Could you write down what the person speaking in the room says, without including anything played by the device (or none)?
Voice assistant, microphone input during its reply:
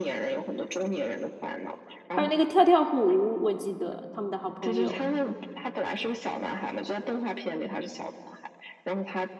还有那个跳跳虎，我记得他们的好朋友，